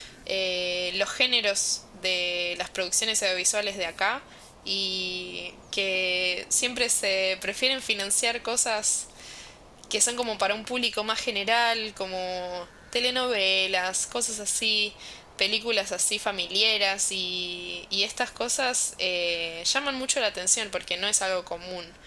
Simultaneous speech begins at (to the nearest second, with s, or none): none